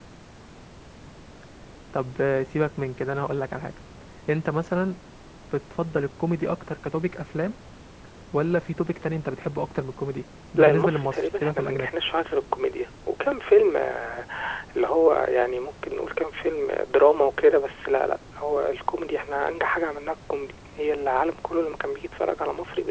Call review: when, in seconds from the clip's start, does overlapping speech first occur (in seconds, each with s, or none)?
10.6 s